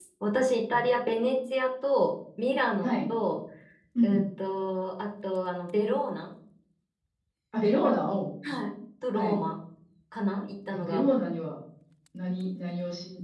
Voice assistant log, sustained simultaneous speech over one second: none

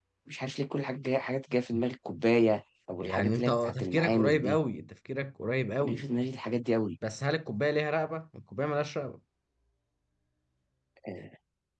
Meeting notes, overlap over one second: present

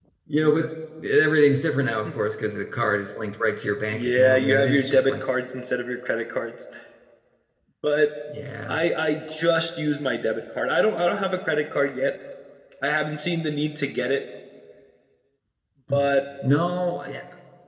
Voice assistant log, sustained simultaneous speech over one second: present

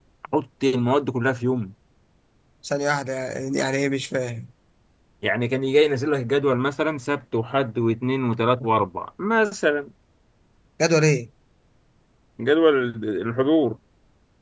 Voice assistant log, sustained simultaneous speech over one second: none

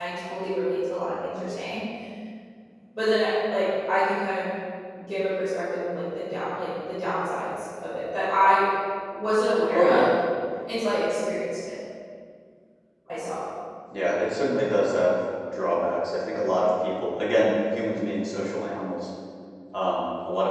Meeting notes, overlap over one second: none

